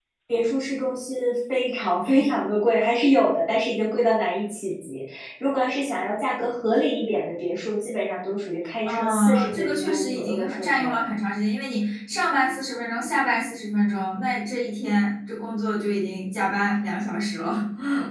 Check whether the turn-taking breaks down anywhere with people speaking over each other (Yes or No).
Yes